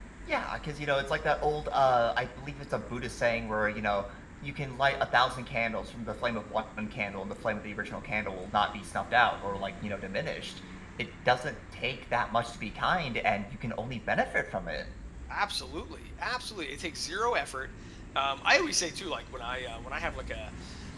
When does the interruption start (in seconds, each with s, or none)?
none